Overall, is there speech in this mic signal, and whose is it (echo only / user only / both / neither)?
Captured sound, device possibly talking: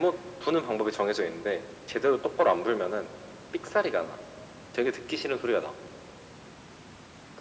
echo only